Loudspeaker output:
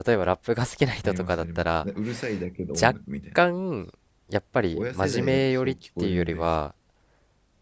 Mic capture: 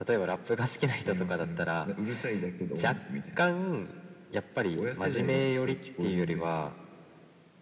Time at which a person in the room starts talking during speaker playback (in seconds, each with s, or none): none